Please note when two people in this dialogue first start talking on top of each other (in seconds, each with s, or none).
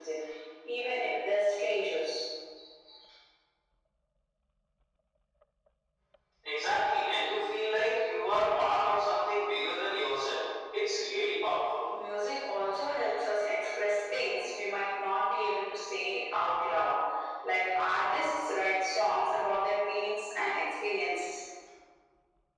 none